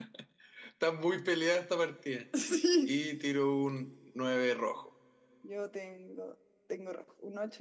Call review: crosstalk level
none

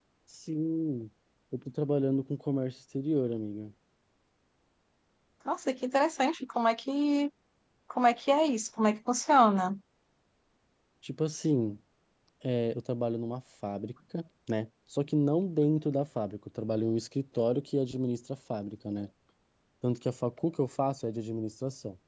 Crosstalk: none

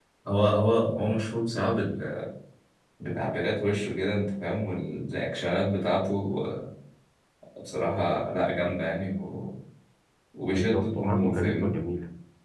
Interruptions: present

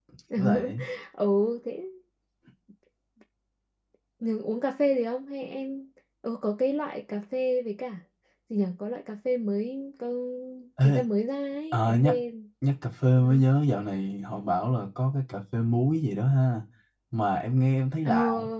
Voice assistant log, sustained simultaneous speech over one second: none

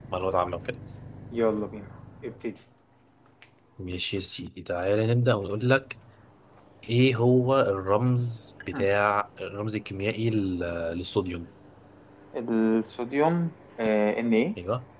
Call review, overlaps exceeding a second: none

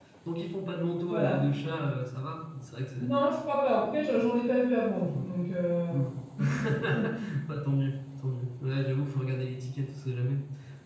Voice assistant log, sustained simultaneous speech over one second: none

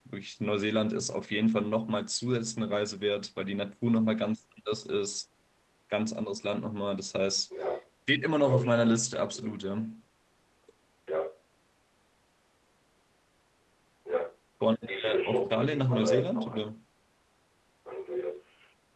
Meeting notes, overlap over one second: present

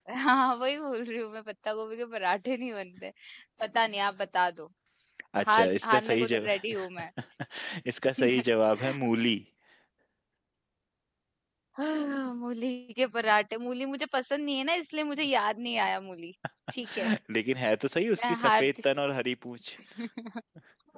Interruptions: present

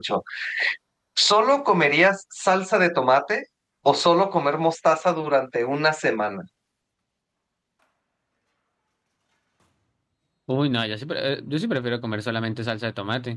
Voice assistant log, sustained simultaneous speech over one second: none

